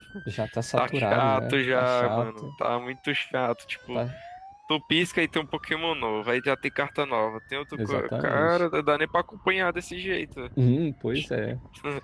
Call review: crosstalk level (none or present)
present